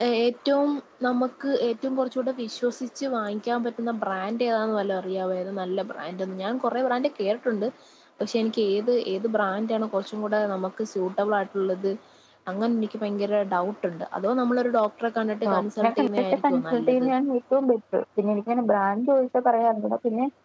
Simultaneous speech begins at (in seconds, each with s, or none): 15.4 s